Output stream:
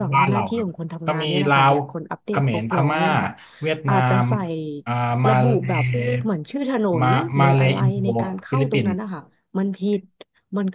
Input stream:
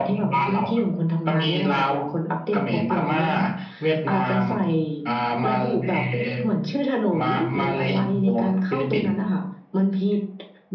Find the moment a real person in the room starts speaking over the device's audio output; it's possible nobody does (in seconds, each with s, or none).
none